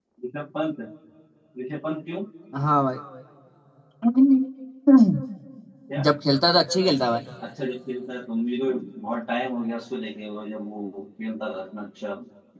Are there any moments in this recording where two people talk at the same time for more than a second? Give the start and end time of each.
none

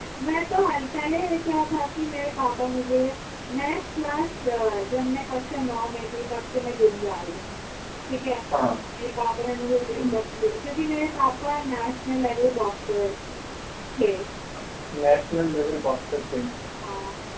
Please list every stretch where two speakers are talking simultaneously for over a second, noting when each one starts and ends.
none

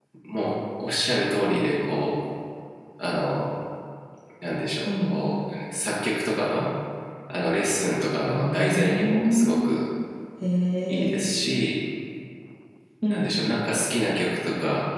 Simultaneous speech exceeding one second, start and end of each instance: 8.2-9.8

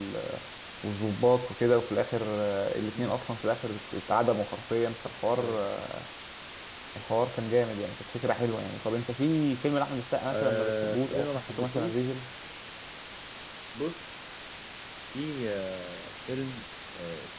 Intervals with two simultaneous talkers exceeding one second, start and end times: 10.3-12.0

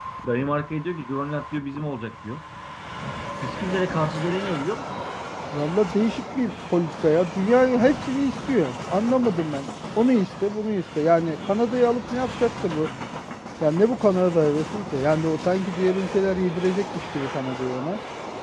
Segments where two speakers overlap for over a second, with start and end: none

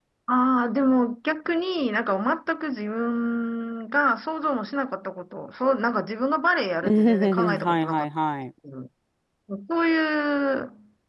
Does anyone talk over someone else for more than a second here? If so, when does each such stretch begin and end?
6.8-8.1

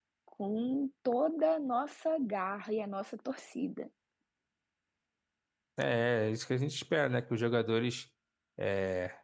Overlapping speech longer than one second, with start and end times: none

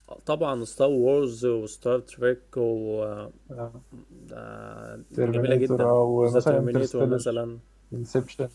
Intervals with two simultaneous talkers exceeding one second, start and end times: 5.2-7.2

